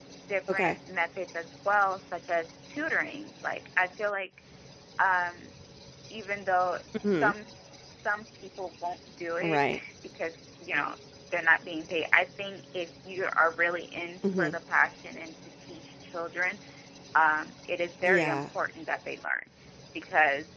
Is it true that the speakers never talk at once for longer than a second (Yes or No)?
Yes